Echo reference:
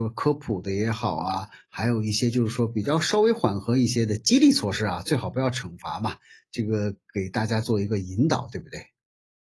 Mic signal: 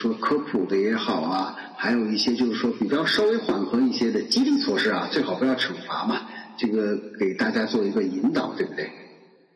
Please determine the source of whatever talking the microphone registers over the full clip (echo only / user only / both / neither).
echo only